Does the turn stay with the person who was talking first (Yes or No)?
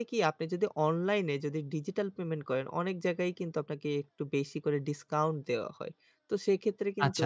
No